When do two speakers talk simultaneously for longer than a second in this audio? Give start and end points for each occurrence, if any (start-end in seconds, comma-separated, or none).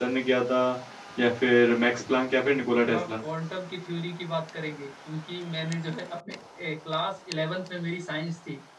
none